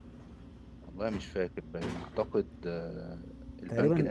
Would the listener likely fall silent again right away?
No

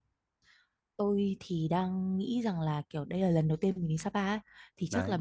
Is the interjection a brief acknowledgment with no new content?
Yes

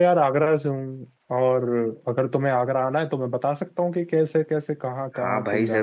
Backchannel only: No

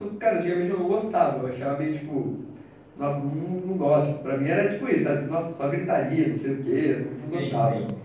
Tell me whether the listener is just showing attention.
Yes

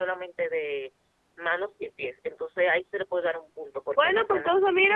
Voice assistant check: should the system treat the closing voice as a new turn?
Yes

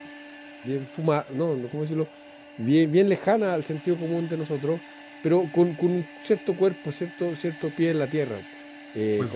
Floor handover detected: Yes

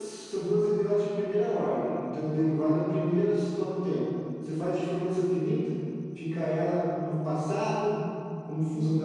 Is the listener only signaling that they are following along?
Yes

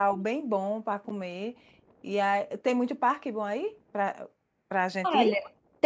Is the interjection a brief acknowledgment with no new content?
No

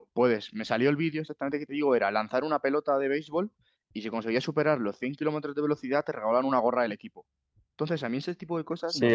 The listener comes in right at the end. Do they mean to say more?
Yes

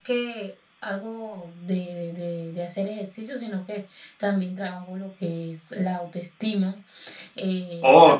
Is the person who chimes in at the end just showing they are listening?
No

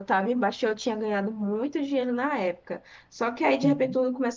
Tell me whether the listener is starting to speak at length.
No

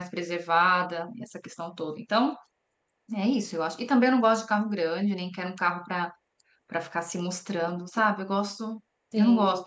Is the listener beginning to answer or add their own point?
No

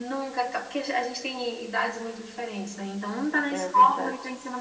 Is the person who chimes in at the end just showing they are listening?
Yes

